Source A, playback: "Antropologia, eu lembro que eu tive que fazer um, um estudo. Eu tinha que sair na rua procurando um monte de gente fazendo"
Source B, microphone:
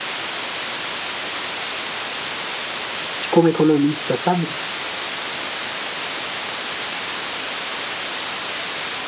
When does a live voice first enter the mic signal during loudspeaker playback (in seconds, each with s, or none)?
3.2 s